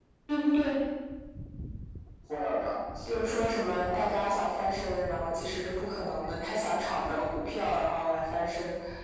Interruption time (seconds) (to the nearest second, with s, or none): 3 s